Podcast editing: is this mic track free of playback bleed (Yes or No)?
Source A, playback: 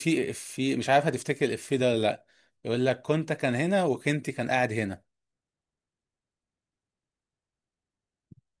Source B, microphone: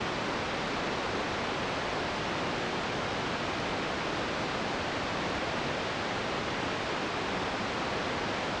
Yes